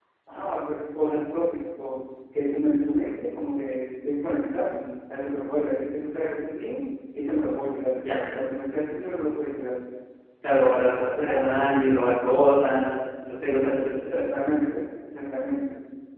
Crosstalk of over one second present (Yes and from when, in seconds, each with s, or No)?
No